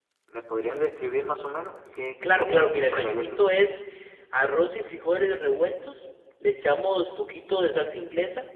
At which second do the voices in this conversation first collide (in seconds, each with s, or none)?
2.2 s